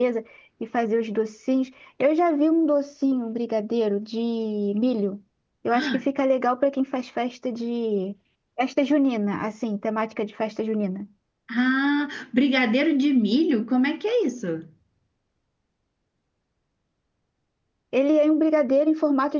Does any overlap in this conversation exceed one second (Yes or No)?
No